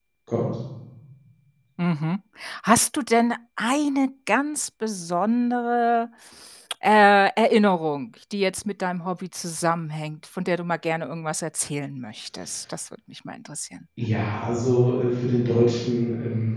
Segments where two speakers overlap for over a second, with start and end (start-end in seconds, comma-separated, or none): none